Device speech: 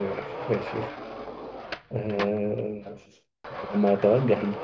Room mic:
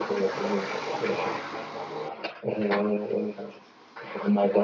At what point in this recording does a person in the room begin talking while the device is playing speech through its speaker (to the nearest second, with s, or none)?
none